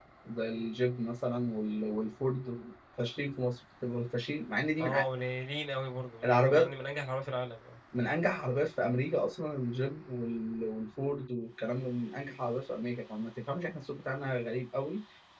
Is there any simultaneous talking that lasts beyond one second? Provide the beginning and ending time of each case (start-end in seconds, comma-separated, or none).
none